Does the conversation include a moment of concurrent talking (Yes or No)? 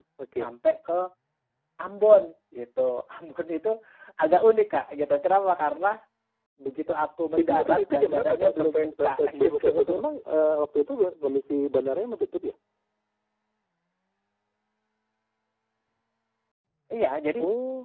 Yes